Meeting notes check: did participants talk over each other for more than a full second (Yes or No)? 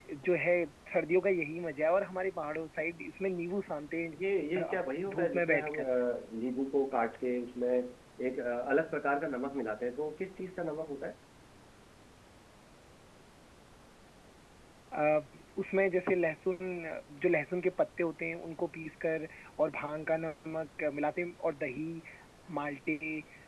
Yes